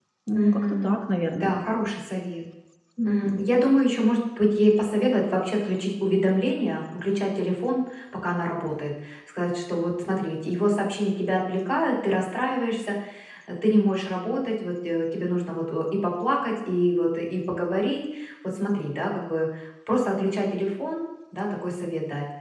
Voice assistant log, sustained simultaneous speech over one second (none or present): none